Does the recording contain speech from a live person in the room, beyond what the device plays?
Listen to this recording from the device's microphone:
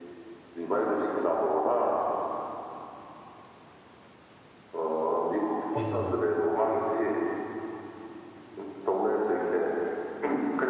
Yes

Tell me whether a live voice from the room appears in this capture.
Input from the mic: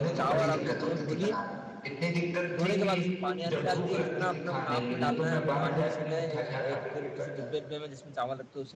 Yes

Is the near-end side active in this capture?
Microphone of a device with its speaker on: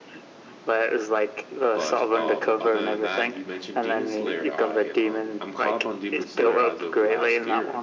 Yes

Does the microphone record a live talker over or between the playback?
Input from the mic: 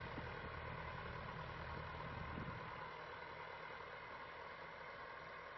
No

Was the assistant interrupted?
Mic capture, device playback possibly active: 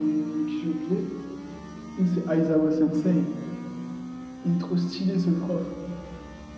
No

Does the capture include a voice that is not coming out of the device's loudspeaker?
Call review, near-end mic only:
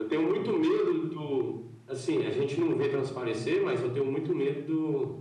No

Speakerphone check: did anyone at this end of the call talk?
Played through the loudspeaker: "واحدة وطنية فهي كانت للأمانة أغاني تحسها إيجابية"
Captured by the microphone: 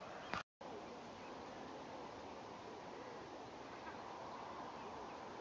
No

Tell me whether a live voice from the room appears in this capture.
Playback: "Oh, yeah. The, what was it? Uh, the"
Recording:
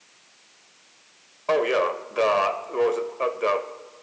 No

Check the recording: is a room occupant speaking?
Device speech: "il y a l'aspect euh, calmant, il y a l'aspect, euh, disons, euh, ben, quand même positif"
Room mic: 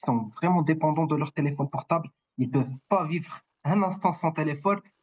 Yes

